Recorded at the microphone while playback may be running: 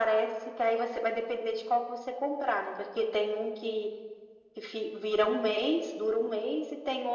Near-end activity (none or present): none